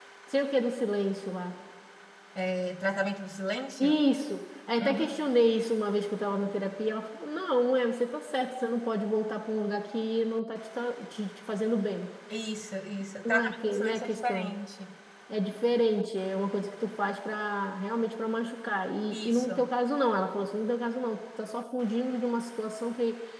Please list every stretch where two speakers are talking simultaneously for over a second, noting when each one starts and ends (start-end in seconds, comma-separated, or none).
13.2-14.5